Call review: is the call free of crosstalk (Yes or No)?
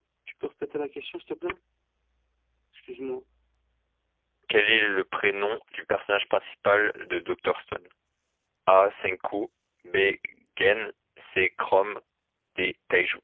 Yes